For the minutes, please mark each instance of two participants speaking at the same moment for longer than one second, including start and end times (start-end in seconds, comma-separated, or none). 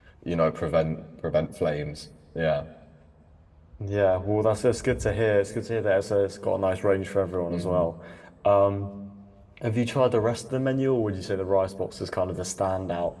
none